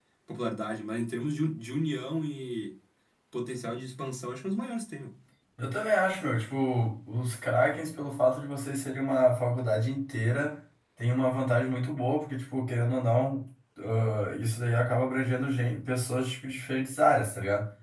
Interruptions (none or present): none